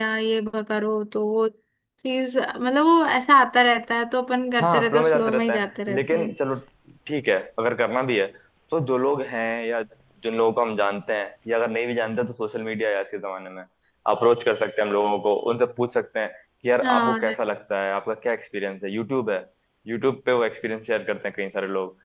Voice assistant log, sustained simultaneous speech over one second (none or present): present